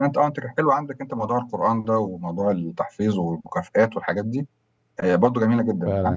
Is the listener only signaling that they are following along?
No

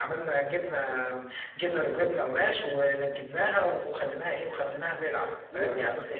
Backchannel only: Yes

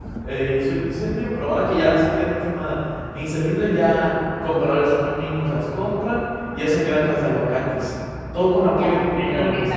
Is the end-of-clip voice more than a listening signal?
Yes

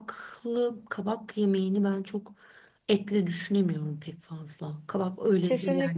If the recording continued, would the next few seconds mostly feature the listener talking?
Yes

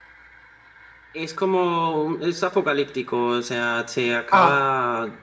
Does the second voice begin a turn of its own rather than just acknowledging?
No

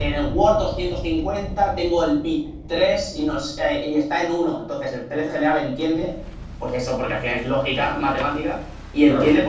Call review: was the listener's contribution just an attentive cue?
Yes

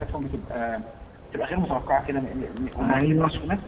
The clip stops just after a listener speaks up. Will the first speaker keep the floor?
Yes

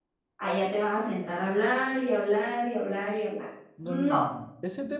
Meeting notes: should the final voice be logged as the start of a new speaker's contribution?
Yes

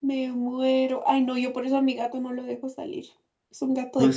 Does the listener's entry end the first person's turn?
Yes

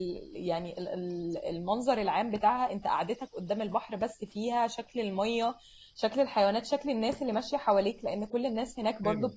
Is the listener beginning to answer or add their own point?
No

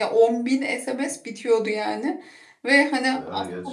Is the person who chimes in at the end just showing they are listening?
Yes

